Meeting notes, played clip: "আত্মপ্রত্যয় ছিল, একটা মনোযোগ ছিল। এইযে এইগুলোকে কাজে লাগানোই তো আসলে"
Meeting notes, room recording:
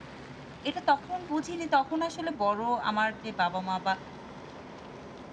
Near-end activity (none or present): present